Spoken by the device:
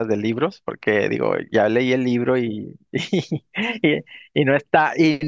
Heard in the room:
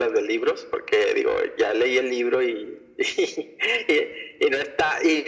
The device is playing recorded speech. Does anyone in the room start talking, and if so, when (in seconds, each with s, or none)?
none